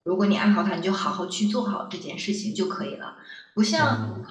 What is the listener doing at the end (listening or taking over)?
listening